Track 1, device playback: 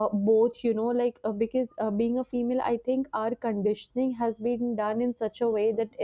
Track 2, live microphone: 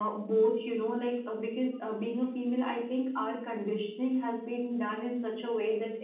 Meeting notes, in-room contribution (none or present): none